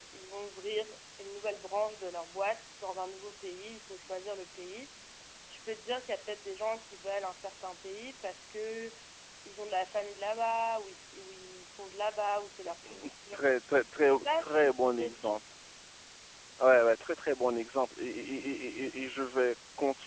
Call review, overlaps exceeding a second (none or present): present